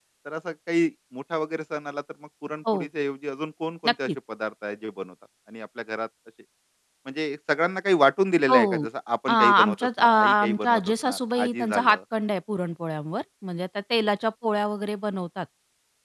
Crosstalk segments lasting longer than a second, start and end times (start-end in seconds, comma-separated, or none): 9.3-12.0